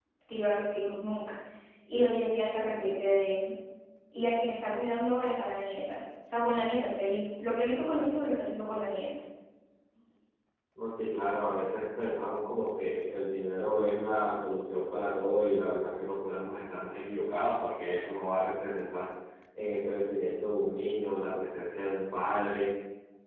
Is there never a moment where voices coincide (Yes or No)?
Yes